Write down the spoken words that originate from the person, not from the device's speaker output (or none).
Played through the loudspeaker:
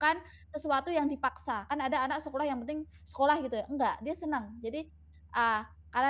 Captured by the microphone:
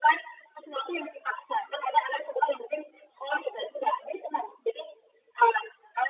none